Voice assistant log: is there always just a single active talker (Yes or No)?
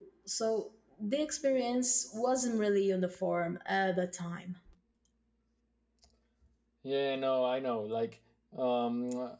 Yes